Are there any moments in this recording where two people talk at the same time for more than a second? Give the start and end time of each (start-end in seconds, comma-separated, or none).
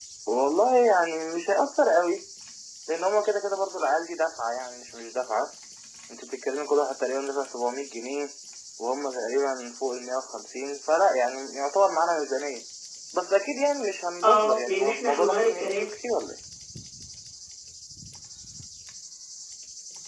14.2-15.9